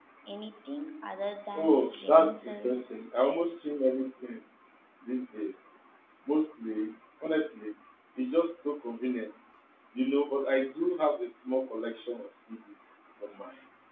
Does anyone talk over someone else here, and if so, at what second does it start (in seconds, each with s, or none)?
1.6 s